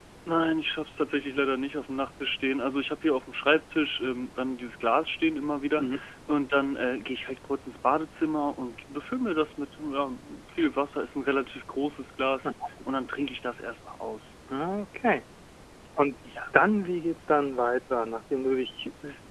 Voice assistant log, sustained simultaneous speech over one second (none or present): none